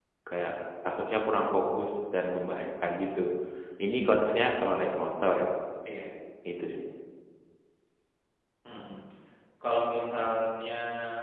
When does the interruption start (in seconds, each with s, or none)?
none